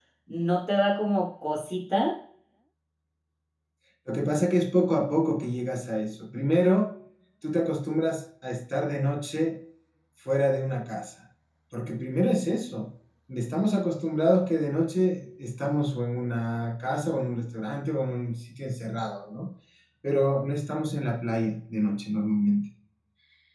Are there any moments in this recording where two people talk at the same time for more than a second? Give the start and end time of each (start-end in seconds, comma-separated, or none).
none